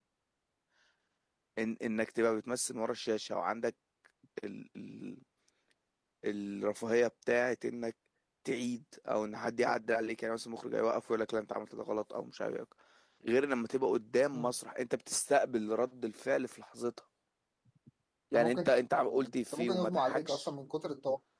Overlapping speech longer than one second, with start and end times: 18.3-20.5

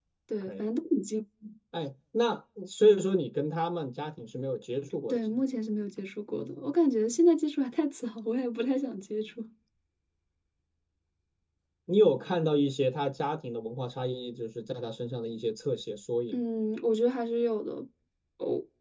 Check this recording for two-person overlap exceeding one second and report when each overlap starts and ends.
none

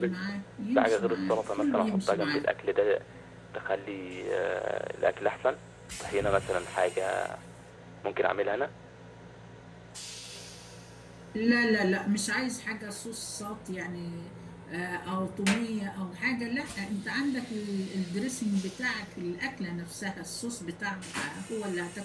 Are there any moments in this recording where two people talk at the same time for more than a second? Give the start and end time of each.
0.8-2.4

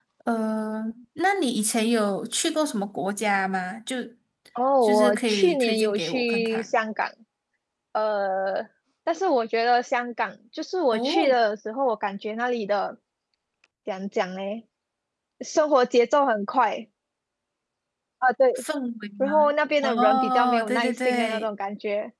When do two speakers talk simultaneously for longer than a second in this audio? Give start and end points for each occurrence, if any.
4.8-6.7, 19.8-21.4

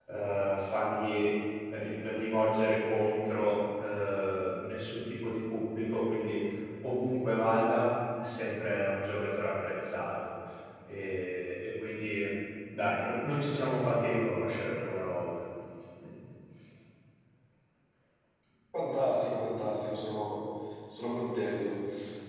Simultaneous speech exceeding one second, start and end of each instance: none

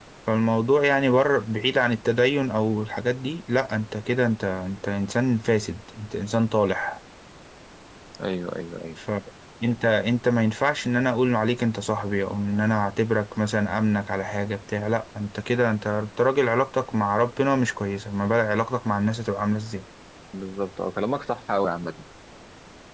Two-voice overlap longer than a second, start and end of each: none

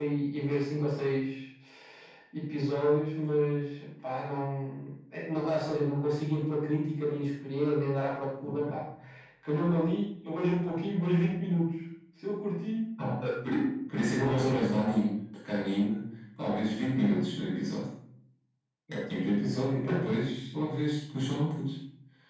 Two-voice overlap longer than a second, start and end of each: none

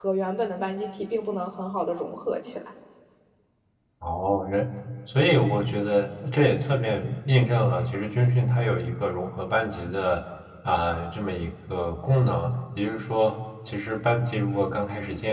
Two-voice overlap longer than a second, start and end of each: none

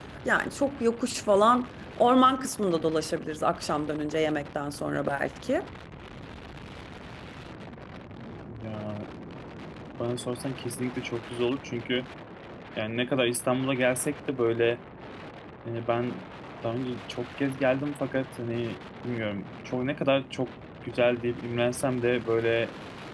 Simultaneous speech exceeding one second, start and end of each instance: none

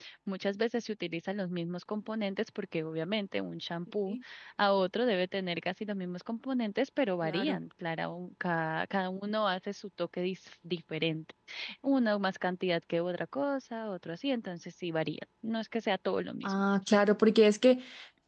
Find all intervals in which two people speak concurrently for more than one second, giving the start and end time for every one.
none

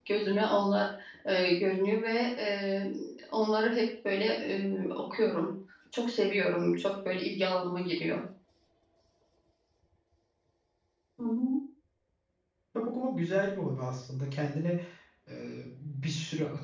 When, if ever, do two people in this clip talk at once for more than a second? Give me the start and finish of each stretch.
none

